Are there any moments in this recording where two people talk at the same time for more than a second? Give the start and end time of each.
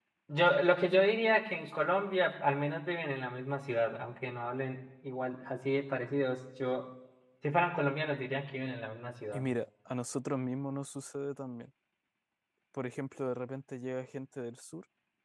none

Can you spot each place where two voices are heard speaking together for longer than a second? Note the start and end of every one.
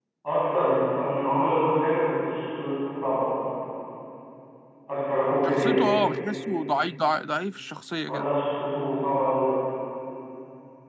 none

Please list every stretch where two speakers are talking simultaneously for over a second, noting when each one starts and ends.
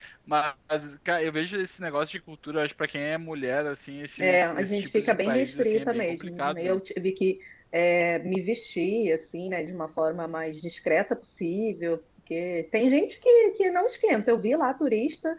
4.2-6.8

